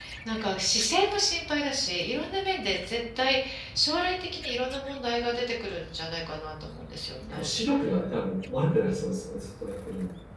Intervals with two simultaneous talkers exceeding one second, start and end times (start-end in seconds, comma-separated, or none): none